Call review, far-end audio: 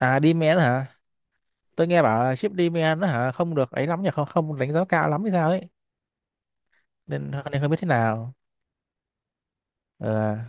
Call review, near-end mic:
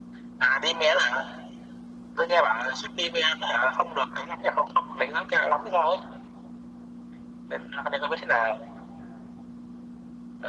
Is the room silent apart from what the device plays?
Yes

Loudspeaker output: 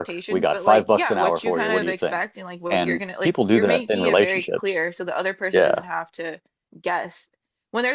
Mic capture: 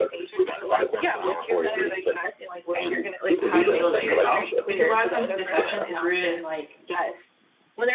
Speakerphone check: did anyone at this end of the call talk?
Yes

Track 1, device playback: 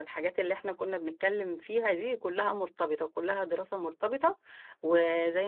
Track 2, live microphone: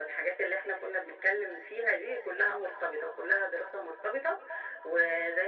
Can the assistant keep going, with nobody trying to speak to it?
Yes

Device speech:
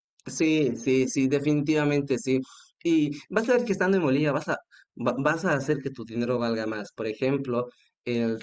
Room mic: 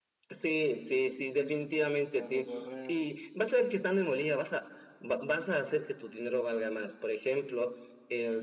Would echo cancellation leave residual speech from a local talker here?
Yes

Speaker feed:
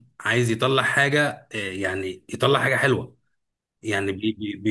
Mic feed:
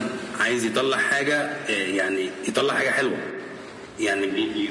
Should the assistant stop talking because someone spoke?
No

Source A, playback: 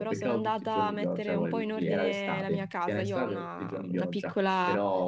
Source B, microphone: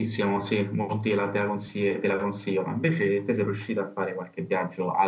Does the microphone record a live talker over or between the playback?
Yes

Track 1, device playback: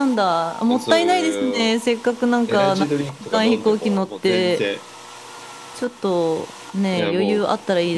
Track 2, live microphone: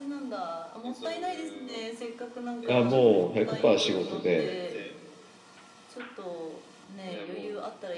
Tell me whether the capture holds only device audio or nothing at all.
No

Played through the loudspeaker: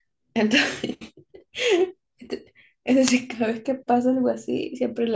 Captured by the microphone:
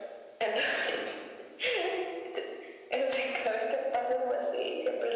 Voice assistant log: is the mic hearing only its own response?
Yes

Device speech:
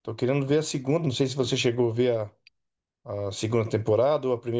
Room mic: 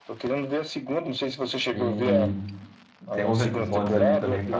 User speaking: Yes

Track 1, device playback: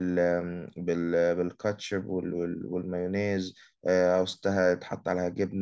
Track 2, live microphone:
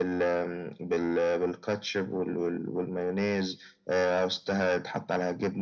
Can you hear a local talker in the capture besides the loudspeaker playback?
No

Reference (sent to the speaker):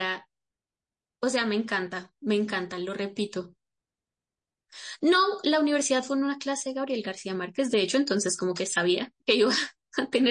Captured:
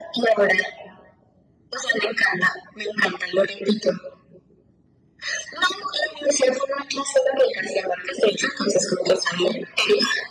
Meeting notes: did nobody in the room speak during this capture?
Yes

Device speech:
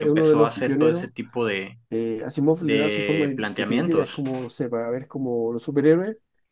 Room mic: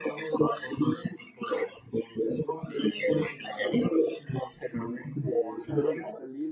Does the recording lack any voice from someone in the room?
No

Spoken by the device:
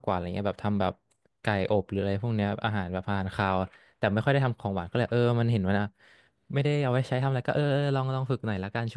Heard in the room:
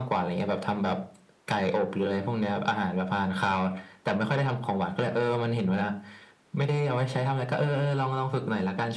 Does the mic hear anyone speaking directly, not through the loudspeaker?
No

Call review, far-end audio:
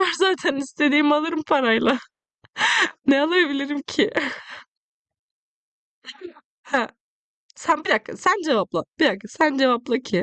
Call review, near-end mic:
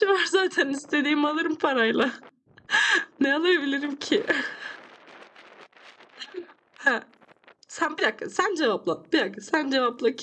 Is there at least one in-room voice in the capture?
No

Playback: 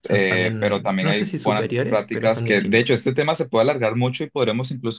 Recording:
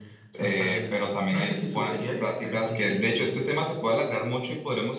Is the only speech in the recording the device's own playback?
Yes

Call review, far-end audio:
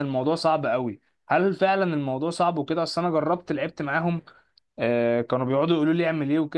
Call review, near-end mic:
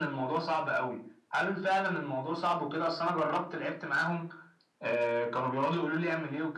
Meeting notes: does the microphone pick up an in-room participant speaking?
No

